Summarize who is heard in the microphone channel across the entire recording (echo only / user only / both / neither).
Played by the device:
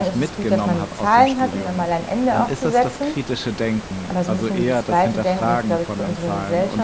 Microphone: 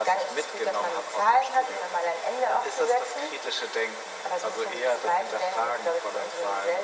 echo only